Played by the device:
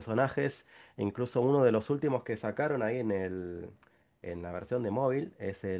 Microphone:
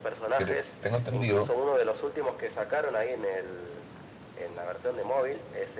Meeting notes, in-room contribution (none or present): present